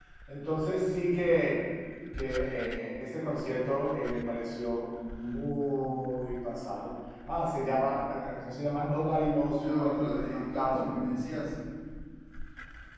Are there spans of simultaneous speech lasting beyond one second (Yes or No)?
Yes